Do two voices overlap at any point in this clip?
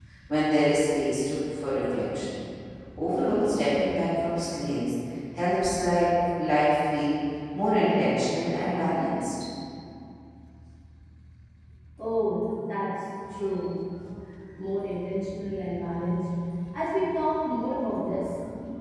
No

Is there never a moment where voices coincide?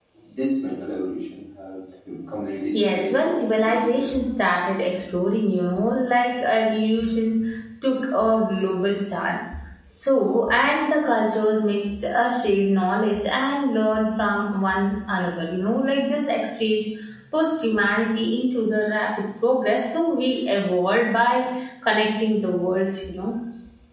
No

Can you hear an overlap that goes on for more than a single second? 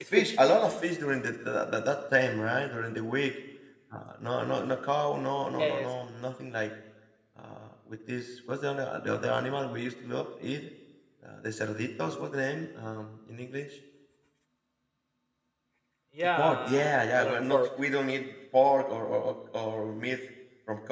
Yes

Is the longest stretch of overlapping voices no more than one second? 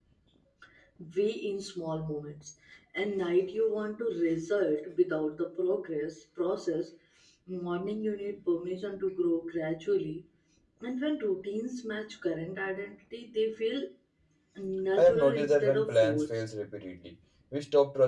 No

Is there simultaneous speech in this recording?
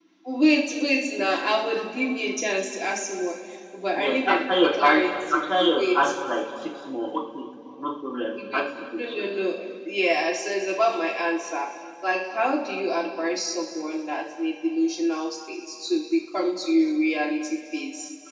Yes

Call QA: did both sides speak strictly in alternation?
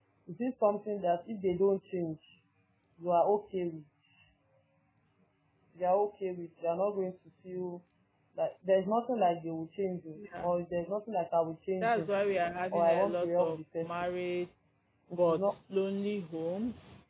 No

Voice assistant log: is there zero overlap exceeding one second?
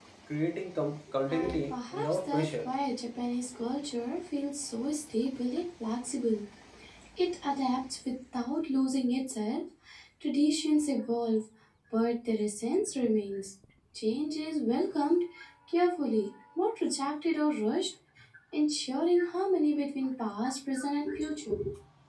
No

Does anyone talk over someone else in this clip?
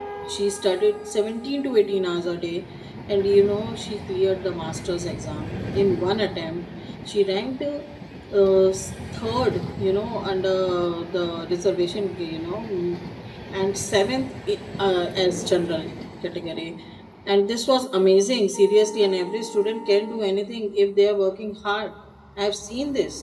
No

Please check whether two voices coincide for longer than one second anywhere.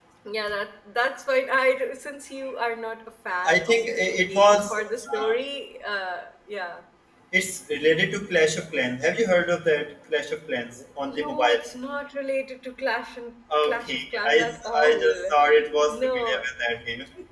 Yes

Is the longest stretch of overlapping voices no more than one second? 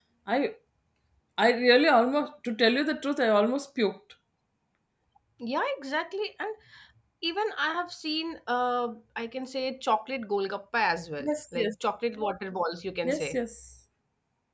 Yes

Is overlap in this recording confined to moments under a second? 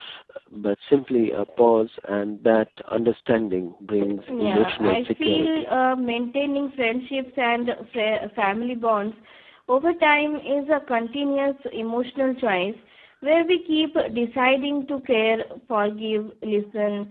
No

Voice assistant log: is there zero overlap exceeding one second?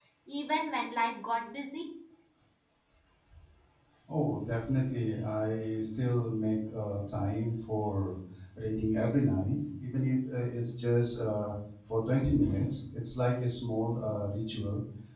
Yes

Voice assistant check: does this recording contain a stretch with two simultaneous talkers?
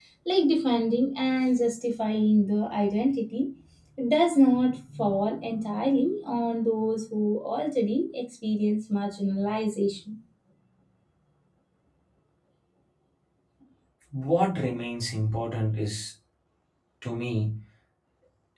No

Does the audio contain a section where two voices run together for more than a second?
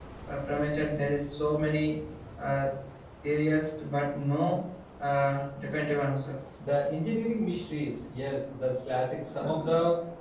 No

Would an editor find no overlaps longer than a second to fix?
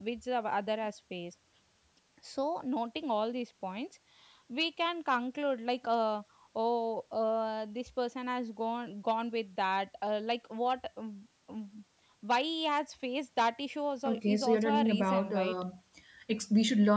No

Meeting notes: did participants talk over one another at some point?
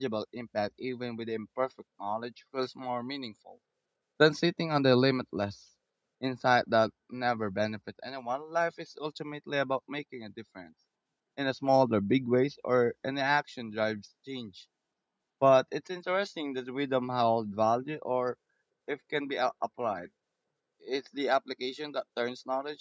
No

